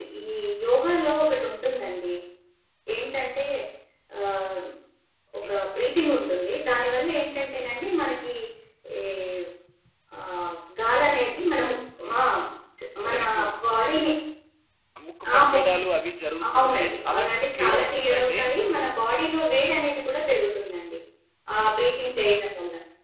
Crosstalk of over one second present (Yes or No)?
Yes